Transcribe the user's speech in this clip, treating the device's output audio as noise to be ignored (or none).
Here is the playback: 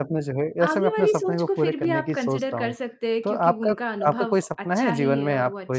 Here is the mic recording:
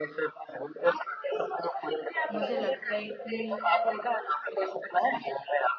मुझे लगता है कि